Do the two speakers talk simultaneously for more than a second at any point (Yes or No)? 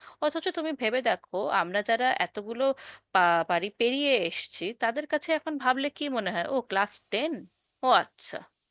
No